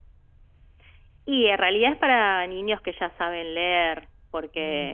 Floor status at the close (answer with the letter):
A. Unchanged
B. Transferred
A